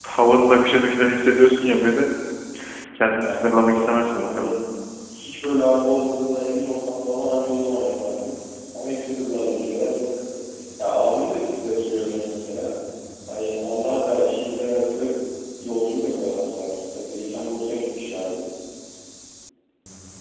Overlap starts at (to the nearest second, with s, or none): 3 s